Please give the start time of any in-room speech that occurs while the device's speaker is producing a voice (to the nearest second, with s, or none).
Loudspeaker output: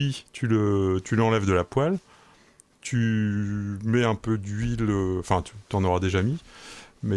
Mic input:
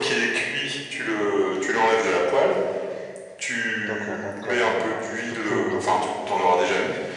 4 s